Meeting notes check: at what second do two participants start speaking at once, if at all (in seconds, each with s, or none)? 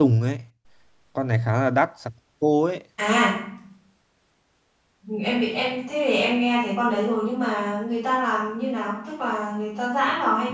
none